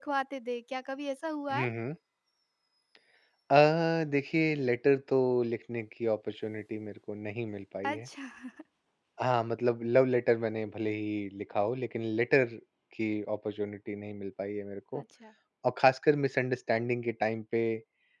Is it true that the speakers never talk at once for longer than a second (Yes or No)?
Yes